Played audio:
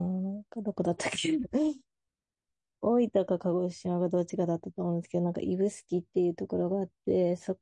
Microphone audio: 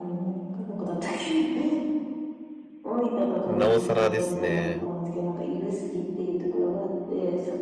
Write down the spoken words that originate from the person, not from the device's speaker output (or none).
なおさらですね。